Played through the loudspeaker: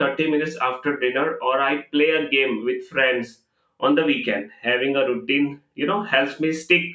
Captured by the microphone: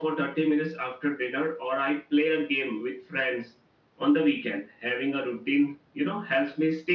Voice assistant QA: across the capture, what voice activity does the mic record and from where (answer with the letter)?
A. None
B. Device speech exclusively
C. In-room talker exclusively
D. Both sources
B